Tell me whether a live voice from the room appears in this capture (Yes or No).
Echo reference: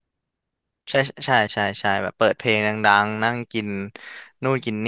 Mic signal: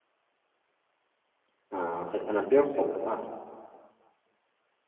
Yes